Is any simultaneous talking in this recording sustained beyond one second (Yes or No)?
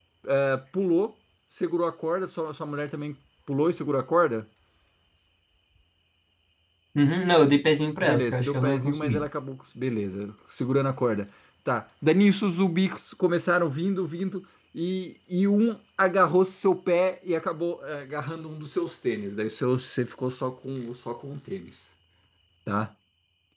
Yes